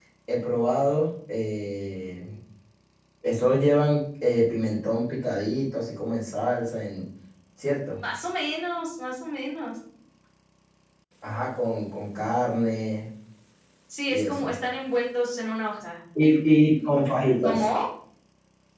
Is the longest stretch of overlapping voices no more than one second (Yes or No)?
Yes